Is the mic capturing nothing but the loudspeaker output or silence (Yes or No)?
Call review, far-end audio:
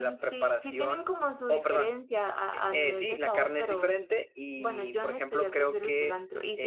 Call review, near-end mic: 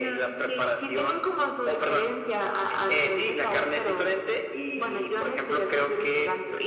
Yes